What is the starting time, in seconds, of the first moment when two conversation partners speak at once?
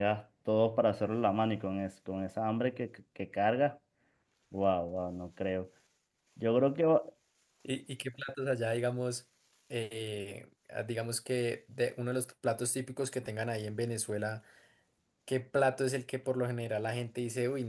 none

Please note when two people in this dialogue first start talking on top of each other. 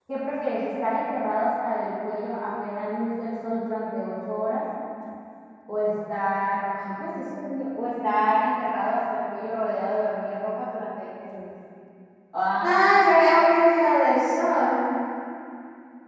none

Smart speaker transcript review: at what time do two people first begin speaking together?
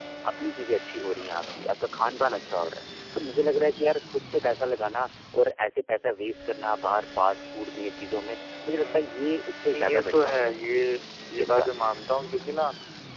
8.7 s

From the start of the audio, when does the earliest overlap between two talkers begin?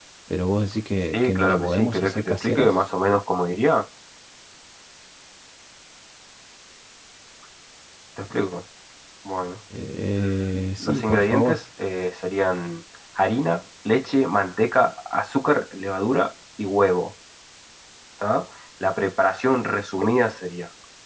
1.1 s

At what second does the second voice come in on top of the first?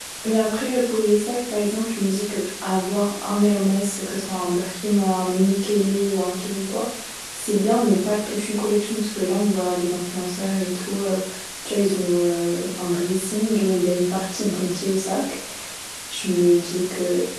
none

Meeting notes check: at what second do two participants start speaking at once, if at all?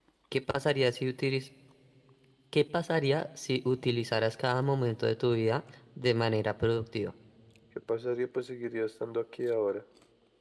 none

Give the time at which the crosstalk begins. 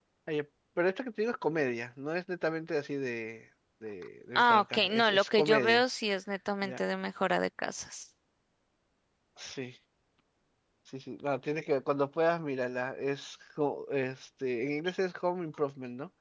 4.4 s

